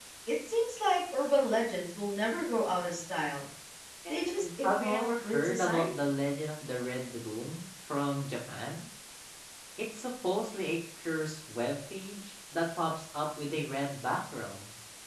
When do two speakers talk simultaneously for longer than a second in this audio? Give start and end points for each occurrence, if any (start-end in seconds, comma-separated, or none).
4.4-5.9